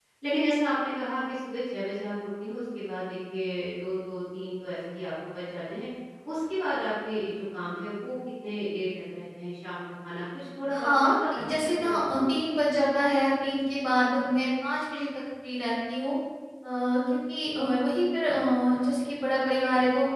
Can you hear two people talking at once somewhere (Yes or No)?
Yes